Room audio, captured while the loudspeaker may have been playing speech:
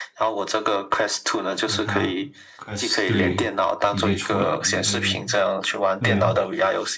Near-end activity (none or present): present